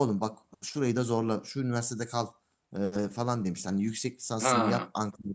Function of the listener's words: listening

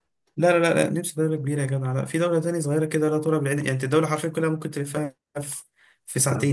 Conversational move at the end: listening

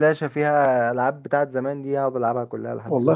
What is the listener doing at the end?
taking over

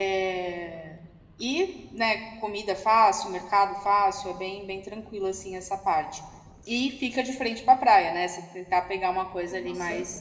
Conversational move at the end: listening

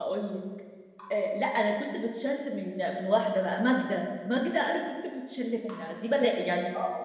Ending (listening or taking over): listening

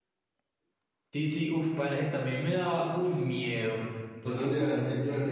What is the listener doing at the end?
taking over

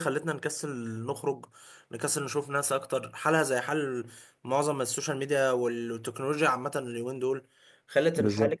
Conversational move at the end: listening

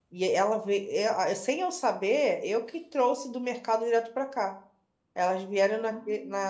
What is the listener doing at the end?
listening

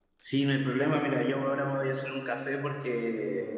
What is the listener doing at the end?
listening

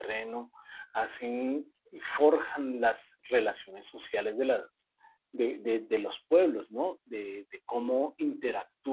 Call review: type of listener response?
listening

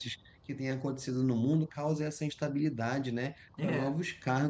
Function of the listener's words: listening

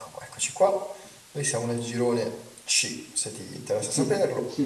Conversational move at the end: taking over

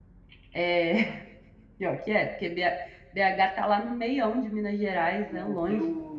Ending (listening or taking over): taking over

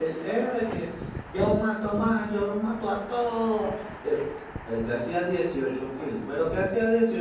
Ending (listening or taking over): listening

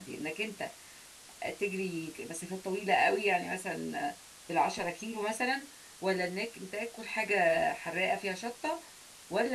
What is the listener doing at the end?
listening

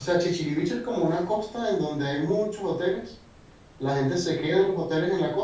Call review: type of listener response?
listening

